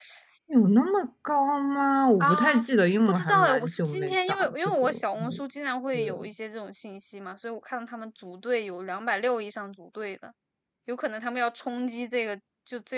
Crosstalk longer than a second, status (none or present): present